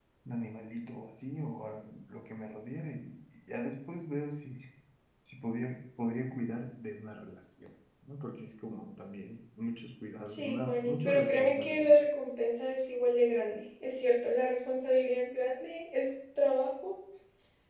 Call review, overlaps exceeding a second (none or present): present